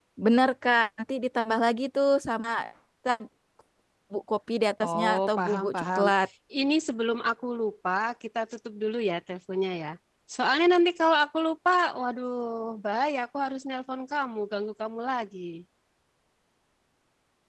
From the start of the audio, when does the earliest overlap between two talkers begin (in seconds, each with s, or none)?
4.8 s